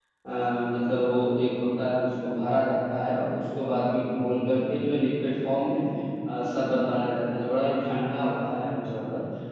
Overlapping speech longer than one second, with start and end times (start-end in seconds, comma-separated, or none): none